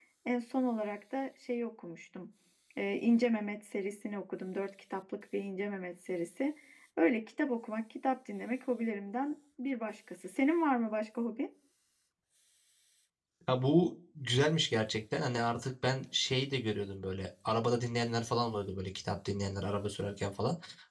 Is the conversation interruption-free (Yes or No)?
Yes